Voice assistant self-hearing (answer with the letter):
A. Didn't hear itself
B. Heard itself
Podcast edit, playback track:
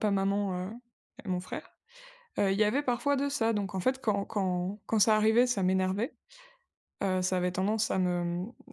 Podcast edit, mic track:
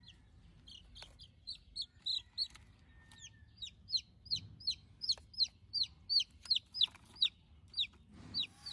A